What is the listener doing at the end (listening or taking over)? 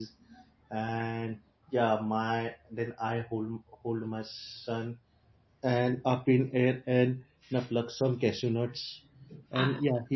listening